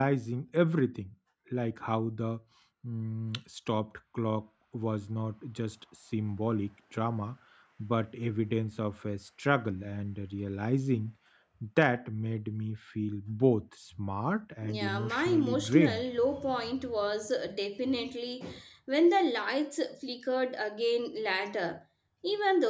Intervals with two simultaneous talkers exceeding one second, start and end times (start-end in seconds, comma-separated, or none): 14.6-16.0